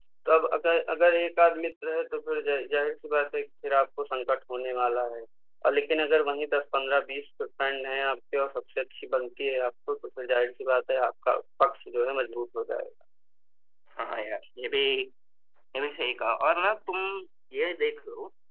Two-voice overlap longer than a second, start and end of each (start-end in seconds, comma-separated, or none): none